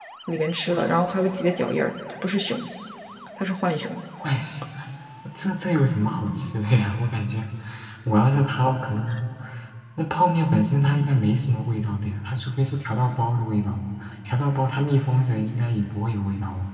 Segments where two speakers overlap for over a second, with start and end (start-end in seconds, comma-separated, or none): none